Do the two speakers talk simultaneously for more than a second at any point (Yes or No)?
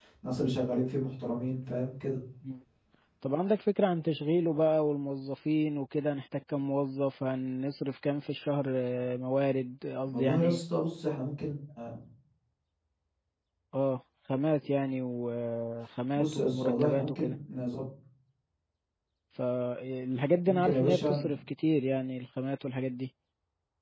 Yes